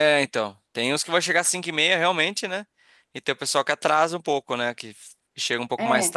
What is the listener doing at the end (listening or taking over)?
listening